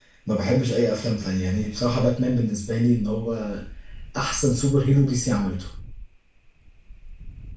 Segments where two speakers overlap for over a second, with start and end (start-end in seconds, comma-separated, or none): none